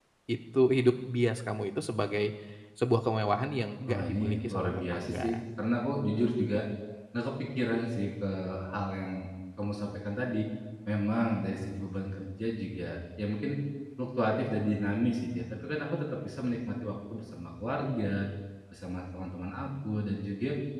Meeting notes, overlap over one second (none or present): present